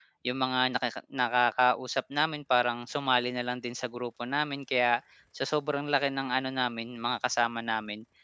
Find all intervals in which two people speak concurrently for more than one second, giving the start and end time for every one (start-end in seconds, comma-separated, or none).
none